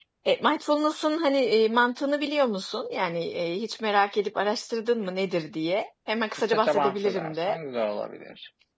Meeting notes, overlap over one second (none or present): present